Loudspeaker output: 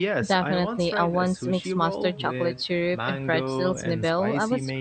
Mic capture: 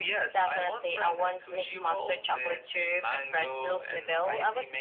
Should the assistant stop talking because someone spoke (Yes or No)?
No